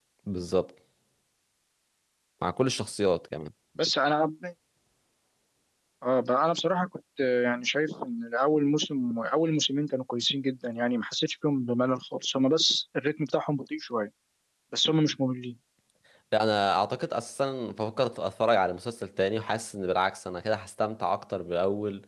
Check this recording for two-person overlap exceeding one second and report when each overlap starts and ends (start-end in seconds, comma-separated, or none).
none